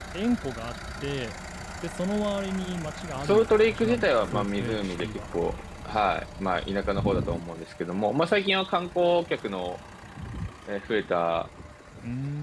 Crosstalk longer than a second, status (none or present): present